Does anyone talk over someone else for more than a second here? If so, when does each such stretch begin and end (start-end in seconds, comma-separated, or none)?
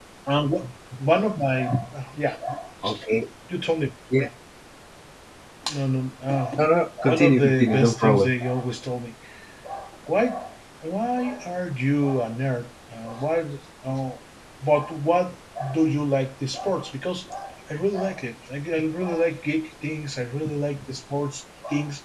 7.0-8.3